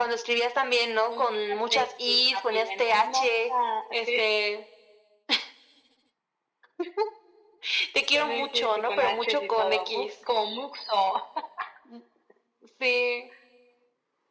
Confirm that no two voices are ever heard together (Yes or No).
No